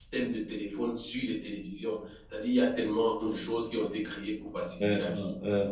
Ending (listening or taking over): taking over